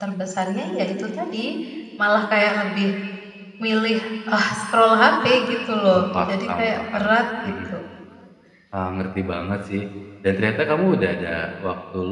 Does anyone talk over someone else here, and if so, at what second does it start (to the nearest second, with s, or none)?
6 s